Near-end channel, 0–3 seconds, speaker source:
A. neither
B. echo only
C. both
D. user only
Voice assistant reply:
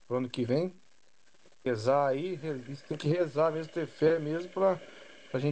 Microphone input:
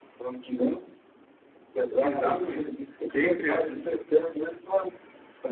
C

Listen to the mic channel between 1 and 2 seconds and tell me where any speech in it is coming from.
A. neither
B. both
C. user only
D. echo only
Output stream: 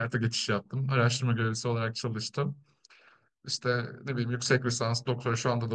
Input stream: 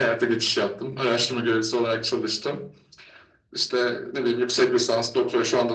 D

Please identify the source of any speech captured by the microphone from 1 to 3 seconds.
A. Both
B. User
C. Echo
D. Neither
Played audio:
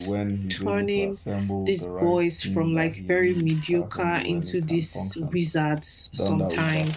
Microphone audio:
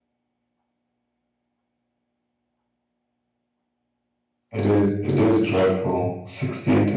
D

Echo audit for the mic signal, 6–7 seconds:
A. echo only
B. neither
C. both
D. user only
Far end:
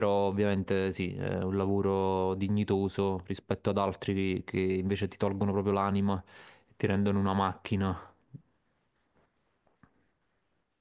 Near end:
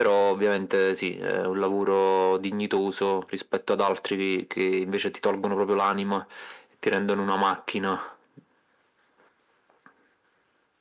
A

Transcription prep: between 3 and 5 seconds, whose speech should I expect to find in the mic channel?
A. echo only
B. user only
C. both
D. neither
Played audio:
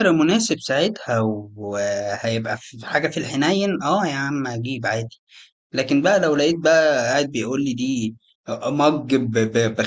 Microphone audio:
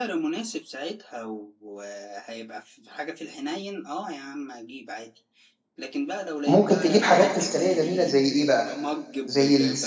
A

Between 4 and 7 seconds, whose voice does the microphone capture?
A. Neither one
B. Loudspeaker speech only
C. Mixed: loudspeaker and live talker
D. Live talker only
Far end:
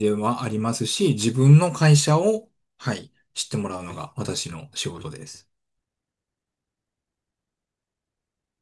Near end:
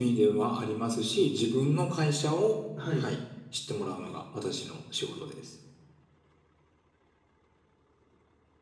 B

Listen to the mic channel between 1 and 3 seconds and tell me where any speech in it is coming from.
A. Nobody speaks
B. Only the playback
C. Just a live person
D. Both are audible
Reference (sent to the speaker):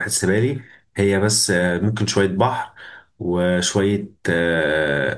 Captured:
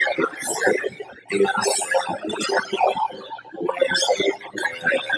B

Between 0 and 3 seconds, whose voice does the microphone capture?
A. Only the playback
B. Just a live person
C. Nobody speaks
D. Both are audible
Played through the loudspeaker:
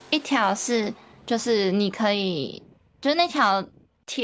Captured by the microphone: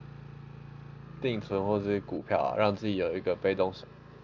B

